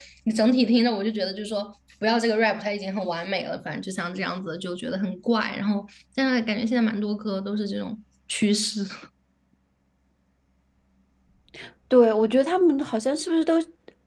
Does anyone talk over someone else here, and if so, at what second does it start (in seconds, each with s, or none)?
none